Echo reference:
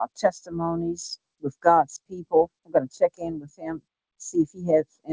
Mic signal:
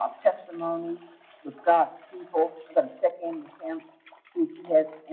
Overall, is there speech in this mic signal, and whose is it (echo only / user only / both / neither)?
echo only